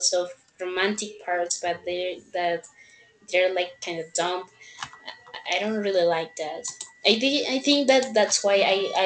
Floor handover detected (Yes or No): No